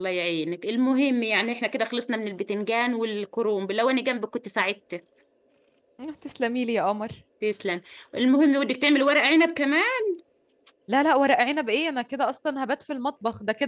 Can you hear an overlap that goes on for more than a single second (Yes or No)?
No